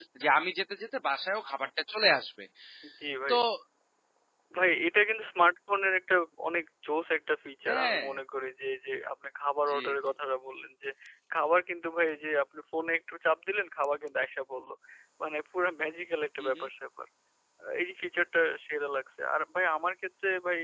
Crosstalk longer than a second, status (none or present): none